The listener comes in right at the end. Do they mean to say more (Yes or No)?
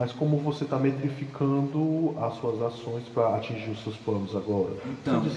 No